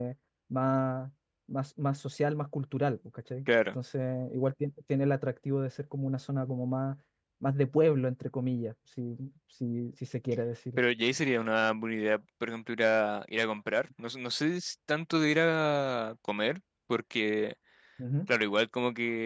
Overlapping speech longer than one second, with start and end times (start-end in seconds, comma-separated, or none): none